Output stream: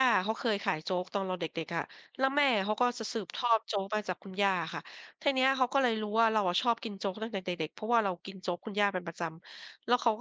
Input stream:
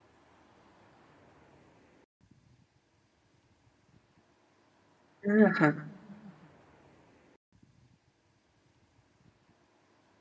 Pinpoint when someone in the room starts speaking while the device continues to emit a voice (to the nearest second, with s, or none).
5 s